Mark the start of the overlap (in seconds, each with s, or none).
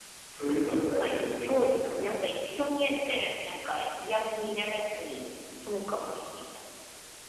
0.7 s